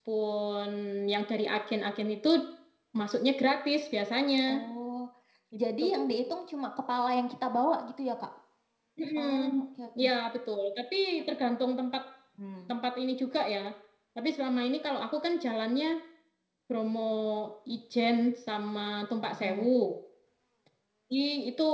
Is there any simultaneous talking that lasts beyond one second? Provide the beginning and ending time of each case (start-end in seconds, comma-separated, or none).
none